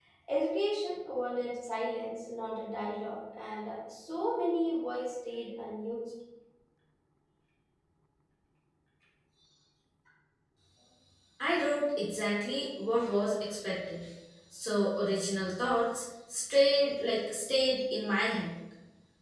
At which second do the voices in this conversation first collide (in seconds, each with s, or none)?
none